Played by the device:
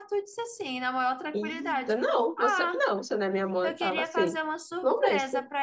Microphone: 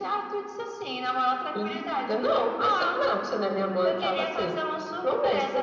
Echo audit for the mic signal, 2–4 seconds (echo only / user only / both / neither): echo only